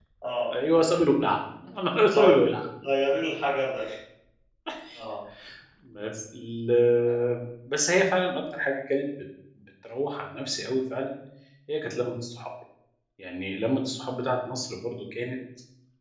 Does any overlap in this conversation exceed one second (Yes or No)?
No